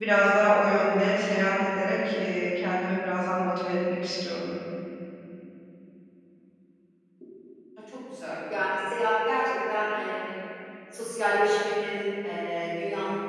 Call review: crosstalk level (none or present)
none